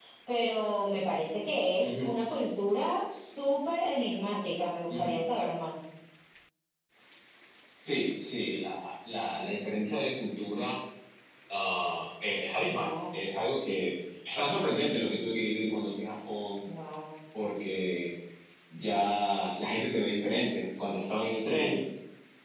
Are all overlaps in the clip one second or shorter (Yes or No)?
Yes